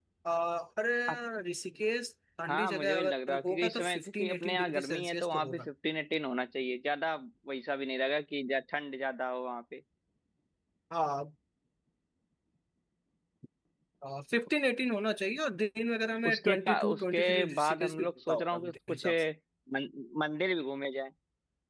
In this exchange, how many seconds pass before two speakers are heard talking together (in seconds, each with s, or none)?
2.5 s